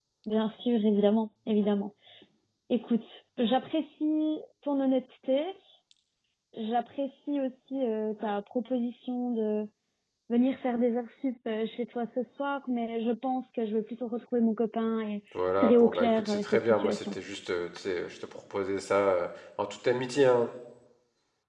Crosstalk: present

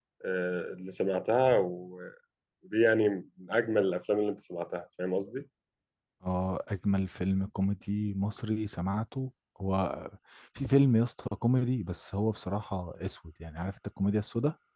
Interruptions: none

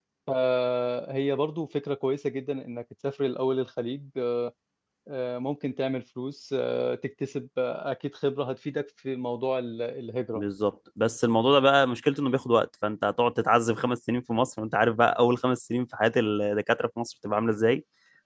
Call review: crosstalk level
none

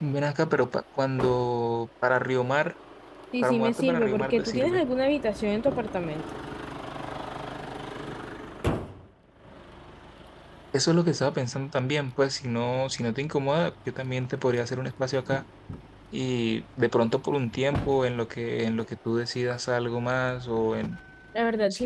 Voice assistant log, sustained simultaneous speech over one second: present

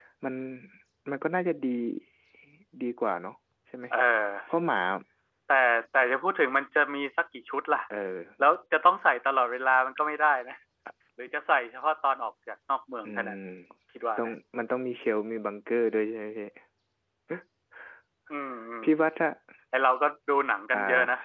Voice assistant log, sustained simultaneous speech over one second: none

